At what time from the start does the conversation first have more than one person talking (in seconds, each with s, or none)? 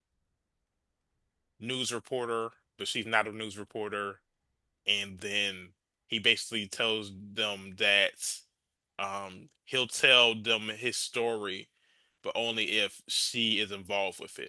none